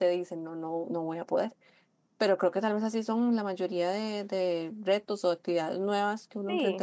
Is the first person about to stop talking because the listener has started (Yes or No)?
Yes